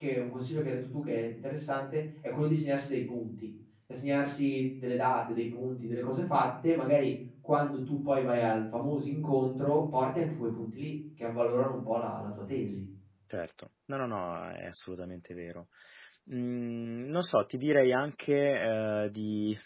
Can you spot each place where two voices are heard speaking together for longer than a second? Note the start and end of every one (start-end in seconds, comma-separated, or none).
none